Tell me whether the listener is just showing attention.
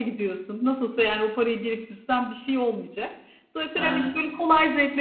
Yes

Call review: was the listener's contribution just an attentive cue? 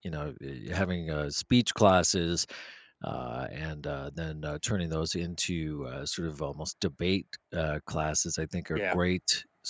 Yes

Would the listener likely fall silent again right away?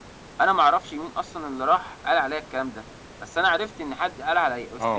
No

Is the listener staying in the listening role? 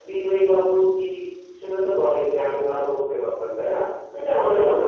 No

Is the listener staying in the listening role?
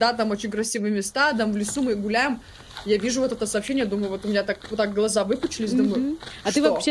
No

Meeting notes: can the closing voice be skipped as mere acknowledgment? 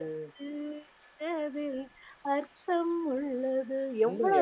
No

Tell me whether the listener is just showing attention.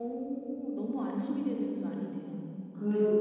No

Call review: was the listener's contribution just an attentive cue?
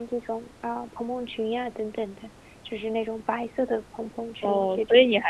No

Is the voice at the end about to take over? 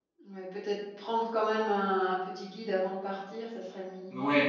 Yes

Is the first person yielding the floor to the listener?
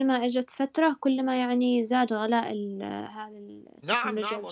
Yes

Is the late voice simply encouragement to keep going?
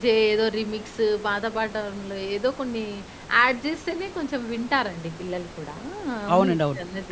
No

